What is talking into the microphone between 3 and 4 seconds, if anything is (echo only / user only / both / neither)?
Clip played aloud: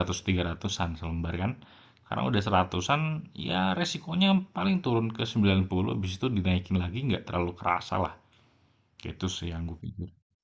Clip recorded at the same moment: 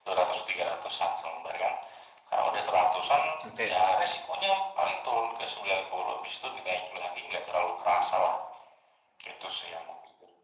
both